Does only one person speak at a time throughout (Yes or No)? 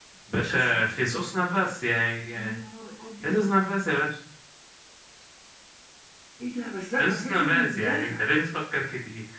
No